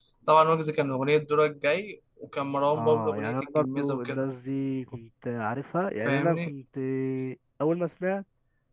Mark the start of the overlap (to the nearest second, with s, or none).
3 s